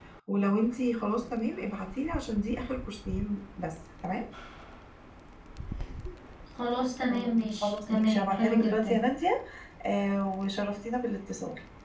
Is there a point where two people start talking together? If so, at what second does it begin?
7.1 s

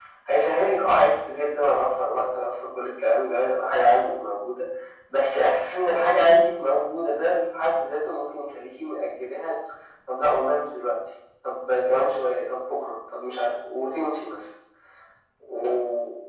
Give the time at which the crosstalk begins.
none

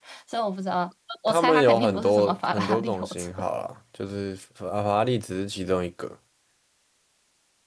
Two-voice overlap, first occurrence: 1.3 s

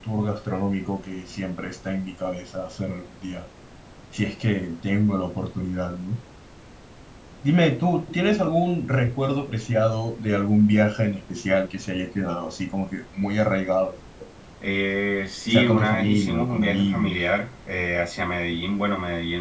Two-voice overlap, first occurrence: 15.5 s

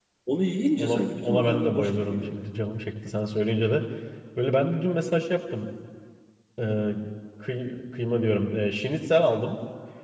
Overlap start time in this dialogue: 0.8 s

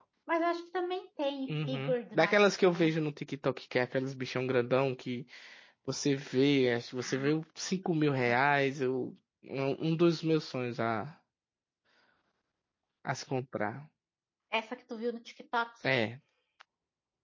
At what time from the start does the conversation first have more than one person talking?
1.5 s

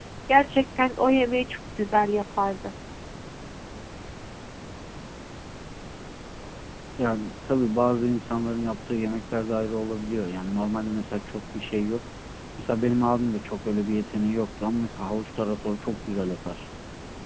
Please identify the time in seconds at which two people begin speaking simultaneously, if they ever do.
none

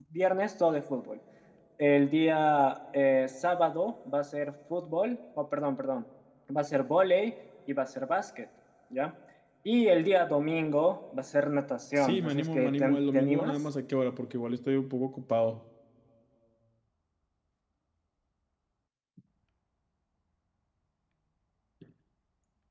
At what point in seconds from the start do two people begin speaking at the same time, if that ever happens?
12.0 s

